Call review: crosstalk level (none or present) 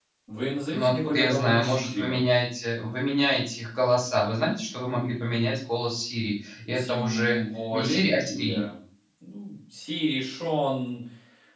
present